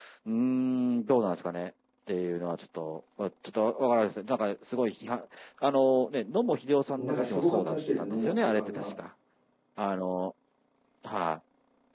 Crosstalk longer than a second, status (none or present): present